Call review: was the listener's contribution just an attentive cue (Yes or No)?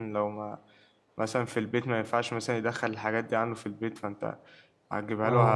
Yes